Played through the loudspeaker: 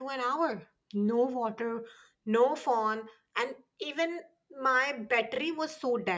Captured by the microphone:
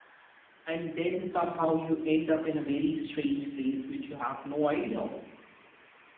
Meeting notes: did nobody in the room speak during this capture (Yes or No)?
No